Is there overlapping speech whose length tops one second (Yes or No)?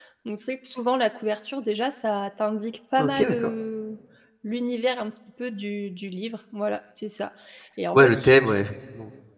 No